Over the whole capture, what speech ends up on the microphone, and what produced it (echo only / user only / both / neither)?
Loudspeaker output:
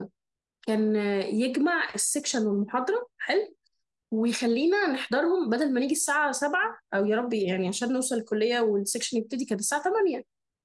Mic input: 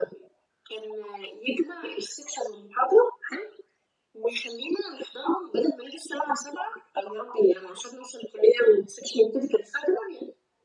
echo only